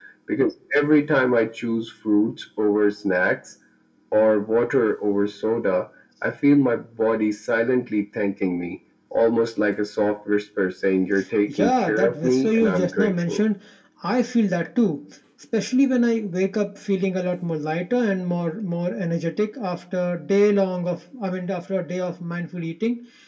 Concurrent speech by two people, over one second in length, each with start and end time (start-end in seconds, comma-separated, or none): 11.5-13.4